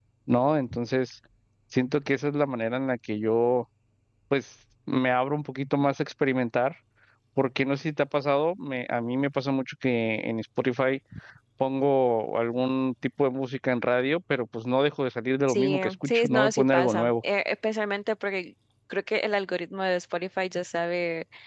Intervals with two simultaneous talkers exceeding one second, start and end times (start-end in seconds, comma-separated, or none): 15.5-17.1